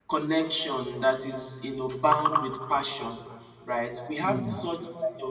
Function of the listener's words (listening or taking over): listening